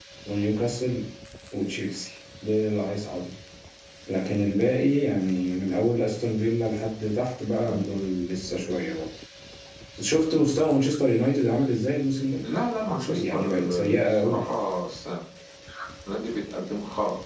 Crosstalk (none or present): present